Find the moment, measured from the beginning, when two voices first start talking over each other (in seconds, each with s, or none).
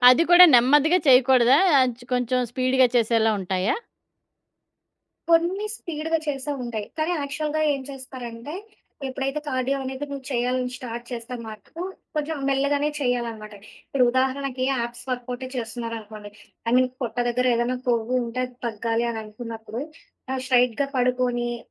none